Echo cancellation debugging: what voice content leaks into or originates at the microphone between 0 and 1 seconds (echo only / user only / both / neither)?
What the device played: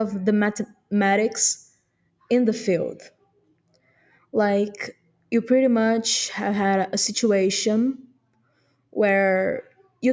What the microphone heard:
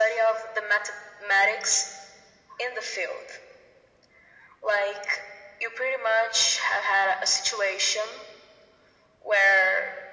echo only